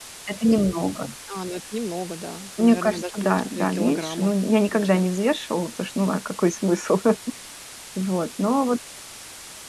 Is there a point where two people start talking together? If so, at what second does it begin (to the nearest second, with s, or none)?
3 s